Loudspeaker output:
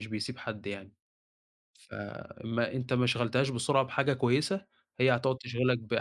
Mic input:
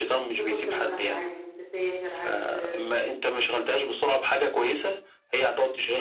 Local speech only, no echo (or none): إذا كنت مثلًا عايز تسافر، عايز ت